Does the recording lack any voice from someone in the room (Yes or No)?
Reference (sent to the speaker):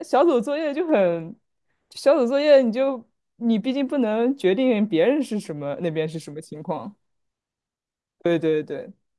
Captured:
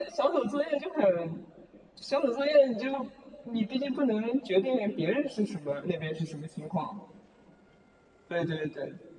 Yes